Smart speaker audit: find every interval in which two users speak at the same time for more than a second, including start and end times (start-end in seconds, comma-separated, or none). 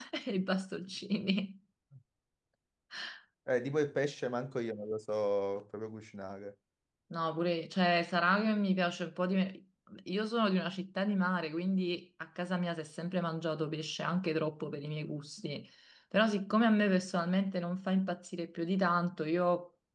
none